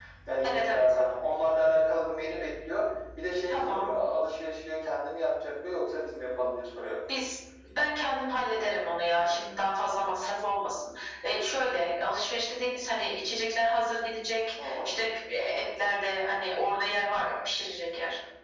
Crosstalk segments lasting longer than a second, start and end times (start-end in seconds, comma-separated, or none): none